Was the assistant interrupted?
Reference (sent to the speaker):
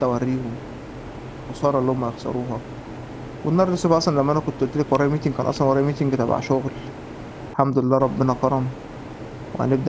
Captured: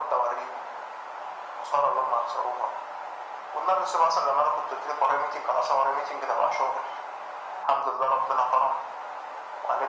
No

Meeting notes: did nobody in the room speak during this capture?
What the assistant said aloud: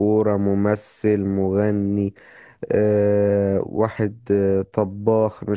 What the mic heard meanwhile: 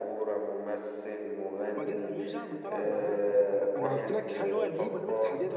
No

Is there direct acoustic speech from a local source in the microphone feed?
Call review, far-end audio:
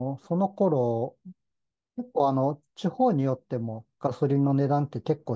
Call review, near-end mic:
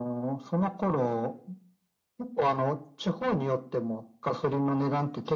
No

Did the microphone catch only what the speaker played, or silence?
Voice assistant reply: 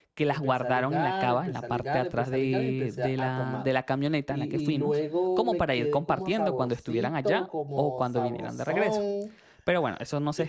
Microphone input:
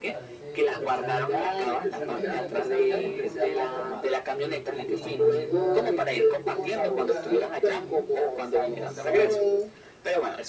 No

